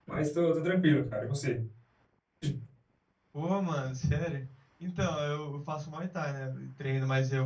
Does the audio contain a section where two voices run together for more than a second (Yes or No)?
No